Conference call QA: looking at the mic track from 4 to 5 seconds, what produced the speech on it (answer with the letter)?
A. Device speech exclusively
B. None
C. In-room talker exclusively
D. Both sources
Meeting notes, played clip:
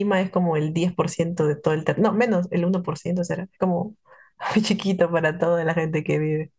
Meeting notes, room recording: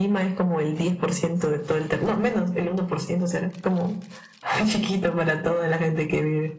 A